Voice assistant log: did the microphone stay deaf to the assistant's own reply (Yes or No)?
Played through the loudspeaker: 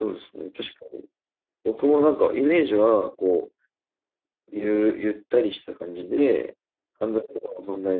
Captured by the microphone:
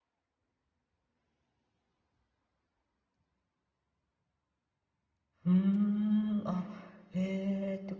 Yes